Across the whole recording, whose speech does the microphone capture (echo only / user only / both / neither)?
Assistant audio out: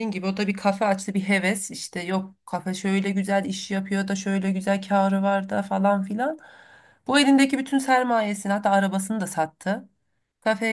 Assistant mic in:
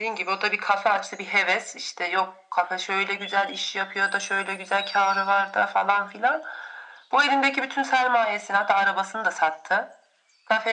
echo only